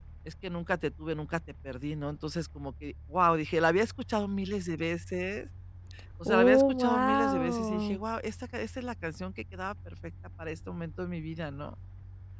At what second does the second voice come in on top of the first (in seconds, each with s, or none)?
6.2 s